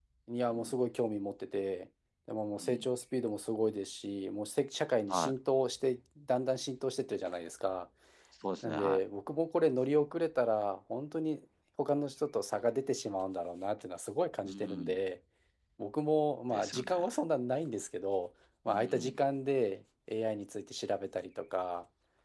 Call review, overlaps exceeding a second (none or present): none